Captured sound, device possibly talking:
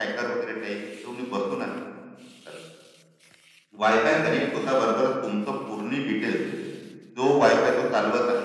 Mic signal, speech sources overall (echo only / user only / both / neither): echo only